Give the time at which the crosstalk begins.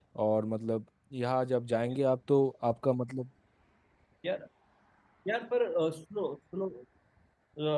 none

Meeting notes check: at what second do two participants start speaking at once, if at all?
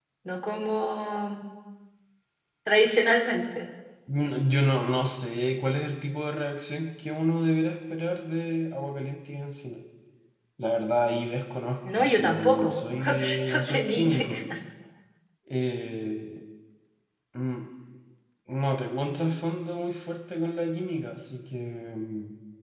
12 s

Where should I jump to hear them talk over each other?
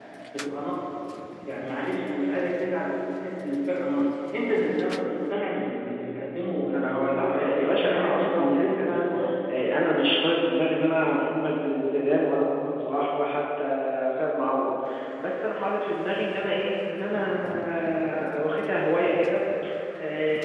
7 s

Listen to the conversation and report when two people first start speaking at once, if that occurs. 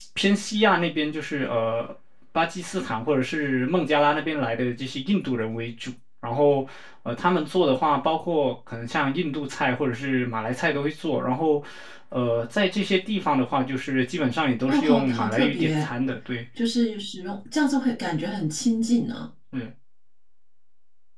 15 s

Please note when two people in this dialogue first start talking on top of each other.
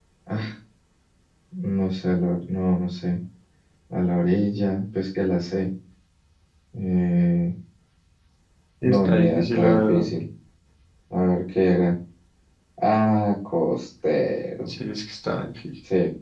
9 s

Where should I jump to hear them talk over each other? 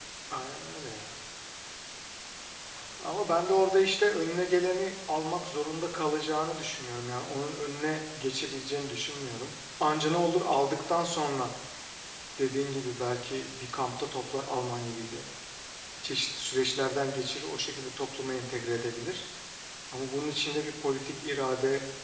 none

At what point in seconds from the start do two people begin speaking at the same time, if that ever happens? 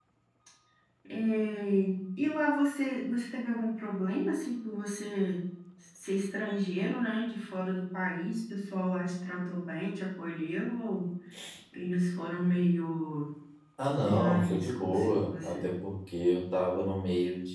14 s

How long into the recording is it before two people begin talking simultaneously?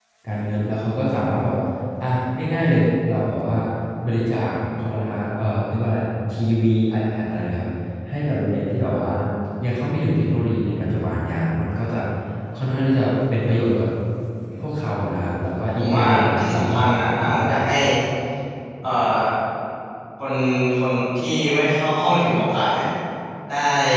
16 s

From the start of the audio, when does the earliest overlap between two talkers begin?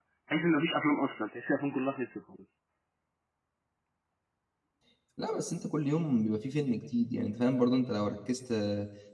none

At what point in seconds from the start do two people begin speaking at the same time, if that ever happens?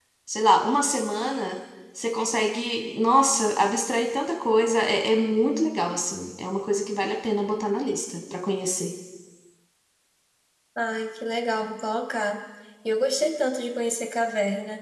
none

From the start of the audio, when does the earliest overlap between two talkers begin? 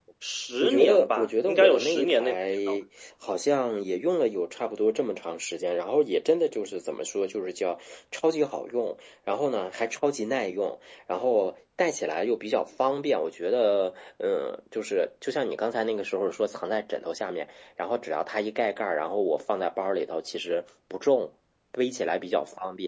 1 s

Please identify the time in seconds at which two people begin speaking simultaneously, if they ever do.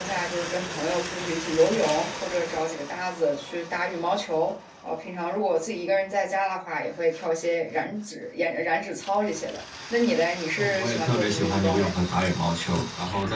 11 s

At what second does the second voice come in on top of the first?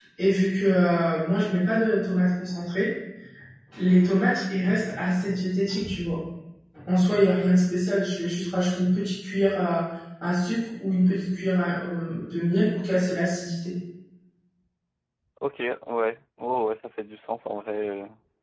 none

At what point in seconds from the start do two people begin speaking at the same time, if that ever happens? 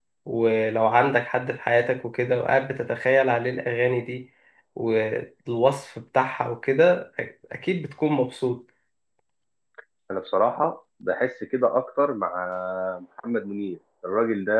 none

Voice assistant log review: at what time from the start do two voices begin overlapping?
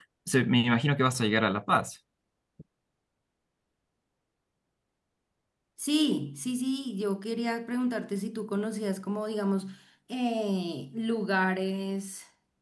none

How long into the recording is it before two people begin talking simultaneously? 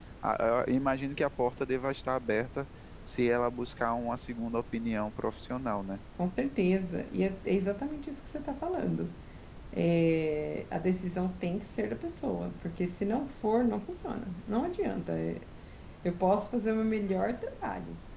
none

